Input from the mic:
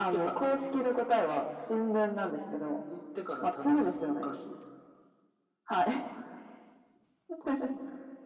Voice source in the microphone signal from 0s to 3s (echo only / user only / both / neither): echo only